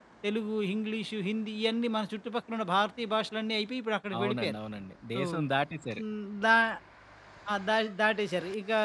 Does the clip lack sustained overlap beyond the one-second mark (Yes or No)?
Yes